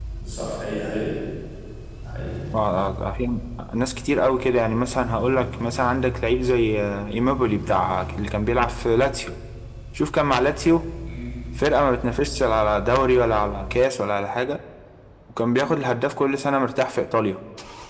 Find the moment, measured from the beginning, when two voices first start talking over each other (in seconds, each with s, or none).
none